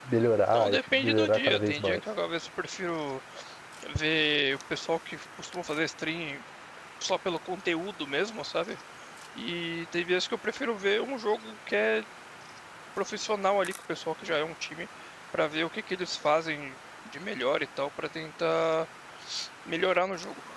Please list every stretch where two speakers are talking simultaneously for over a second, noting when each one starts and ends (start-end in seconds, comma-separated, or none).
0.5-2.0